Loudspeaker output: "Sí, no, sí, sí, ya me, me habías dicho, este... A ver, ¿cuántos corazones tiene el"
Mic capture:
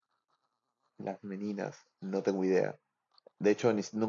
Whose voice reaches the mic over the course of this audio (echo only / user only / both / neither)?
user only